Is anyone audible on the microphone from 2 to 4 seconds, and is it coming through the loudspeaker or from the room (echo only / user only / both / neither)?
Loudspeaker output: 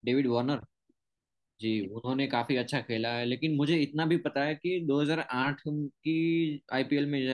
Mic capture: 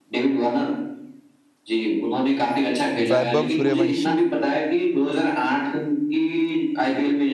both